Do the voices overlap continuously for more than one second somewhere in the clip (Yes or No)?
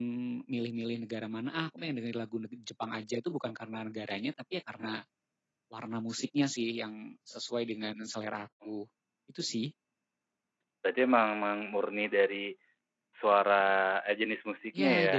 No